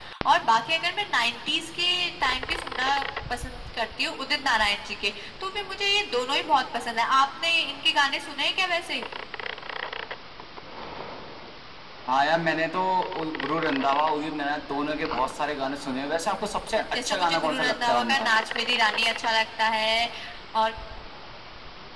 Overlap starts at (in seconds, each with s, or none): 17.1 s